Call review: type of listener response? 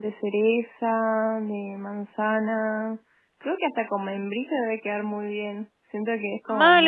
taking over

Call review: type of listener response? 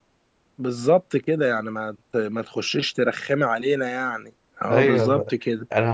taking over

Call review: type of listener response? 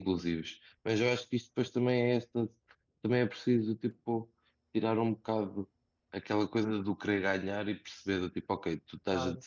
listening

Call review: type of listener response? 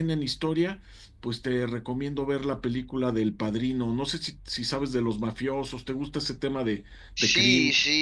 taking over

